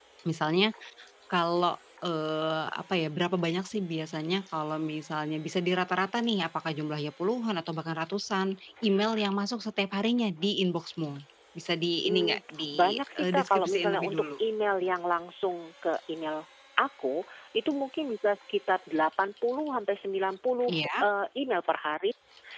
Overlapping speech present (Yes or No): Yes